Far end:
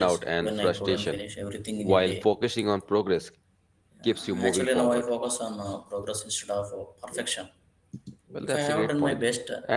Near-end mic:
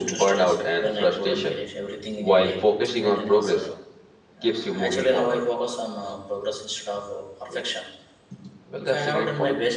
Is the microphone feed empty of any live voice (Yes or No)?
No